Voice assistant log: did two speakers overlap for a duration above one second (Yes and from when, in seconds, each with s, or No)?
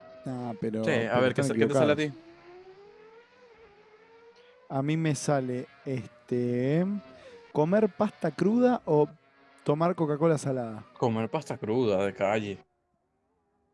Yes, from 0.8 s